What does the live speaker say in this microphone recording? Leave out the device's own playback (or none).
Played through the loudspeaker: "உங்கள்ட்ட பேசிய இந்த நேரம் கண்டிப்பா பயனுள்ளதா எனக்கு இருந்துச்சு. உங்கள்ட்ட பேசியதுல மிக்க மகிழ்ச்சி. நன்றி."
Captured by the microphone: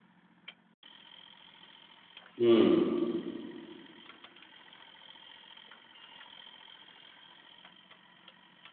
ம்.